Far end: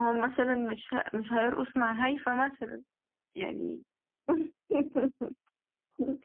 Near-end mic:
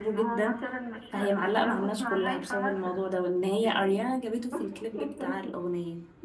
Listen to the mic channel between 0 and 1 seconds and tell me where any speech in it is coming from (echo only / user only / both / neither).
both